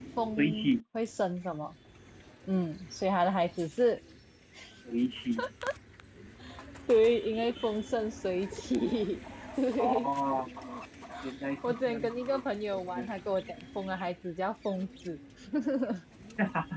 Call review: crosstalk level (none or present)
present